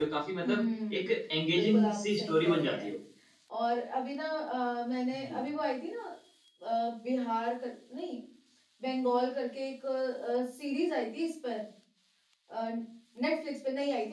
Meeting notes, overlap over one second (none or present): present